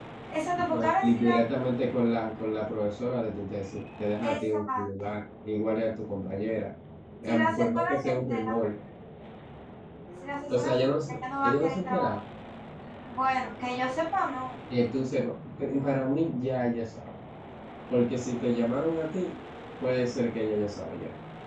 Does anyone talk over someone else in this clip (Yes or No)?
Yes